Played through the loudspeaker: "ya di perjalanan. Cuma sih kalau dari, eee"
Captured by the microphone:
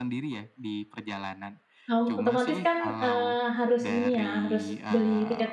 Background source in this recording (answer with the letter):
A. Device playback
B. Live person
A